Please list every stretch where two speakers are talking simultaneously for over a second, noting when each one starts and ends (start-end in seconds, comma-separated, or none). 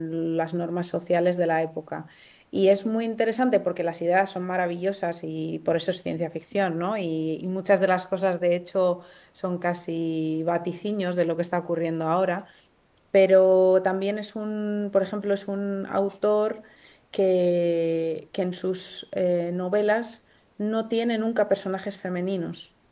none